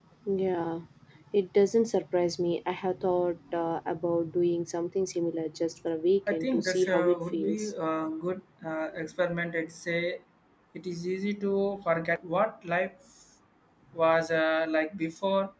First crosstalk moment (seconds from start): 6.3 s

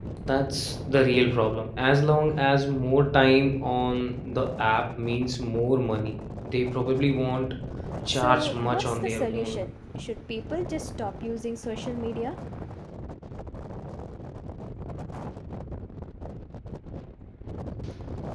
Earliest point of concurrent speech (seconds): 8.1 s

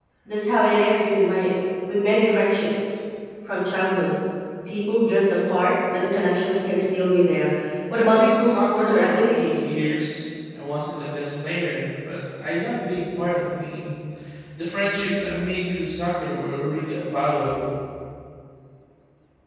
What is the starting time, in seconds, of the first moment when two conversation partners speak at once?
7.9 s

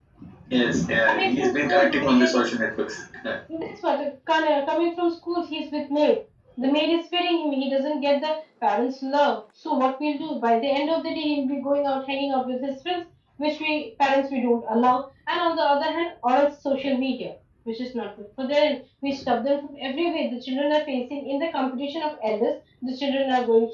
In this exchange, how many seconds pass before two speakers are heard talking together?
1.1 s

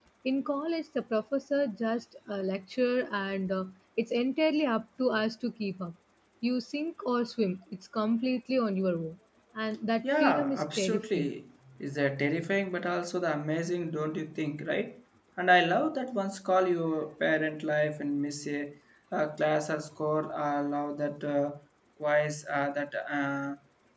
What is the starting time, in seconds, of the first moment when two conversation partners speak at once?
10.0 s

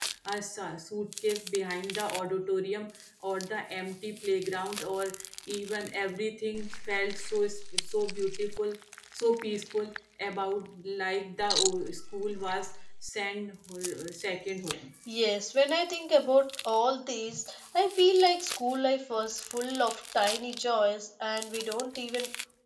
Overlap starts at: none

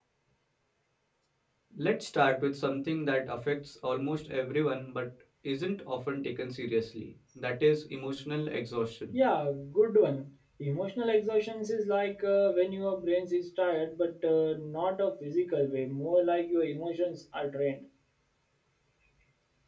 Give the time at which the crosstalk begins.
none

